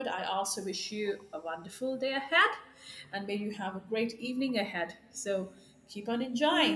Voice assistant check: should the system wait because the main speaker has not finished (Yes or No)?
No